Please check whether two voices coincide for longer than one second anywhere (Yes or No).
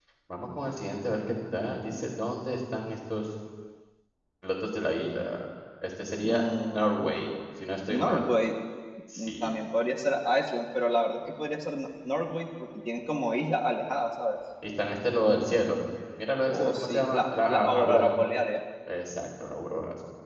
Yes